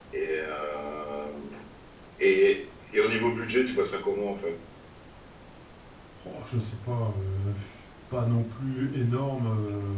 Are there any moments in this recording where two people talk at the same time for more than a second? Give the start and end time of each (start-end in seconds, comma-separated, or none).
none